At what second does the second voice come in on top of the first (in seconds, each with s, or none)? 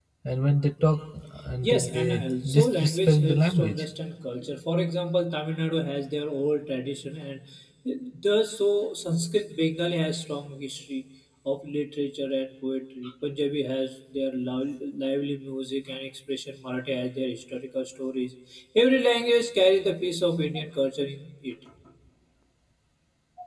1.6 s